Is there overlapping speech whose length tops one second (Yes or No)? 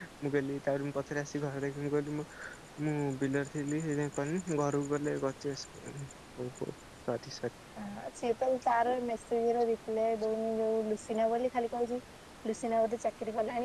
No